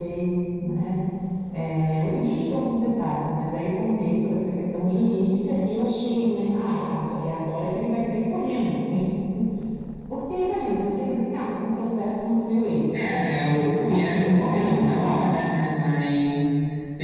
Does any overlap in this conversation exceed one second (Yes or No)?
Yes